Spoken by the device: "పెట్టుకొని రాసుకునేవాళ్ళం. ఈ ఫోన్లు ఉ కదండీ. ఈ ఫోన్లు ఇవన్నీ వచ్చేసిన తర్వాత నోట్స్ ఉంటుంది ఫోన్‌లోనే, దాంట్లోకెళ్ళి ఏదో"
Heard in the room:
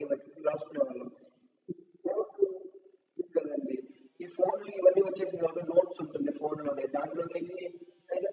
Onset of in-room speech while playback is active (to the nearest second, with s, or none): none